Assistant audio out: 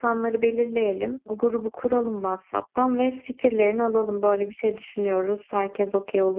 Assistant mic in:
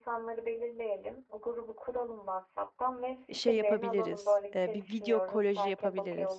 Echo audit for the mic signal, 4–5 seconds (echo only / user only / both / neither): both